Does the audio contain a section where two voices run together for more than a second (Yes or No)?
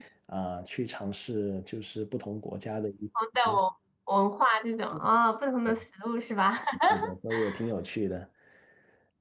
No